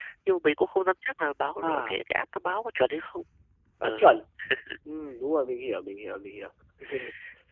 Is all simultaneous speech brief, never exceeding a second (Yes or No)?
Yes